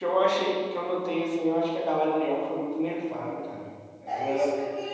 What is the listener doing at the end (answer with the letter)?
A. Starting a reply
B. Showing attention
A